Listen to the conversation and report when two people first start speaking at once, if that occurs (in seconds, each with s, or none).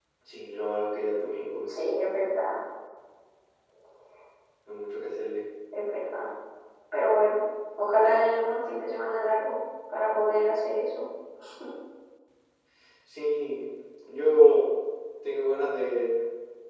none